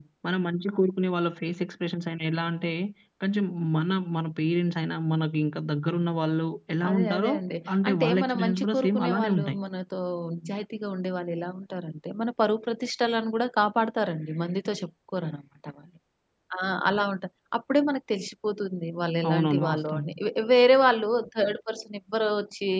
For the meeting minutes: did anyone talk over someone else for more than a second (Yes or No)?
Yes